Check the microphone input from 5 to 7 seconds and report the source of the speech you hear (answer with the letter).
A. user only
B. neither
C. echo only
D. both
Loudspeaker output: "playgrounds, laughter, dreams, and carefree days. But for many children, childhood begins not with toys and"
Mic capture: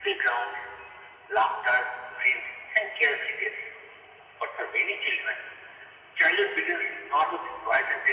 C